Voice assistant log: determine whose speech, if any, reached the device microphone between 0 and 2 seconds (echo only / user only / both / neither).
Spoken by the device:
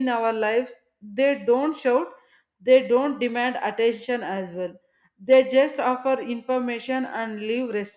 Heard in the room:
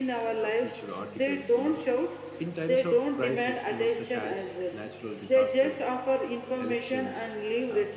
both